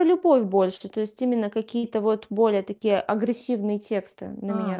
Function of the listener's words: taking over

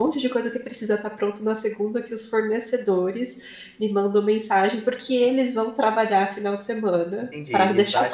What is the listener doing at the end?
taking over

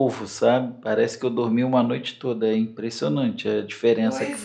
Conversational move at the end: taking over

